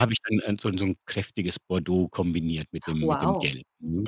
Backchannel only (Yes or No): No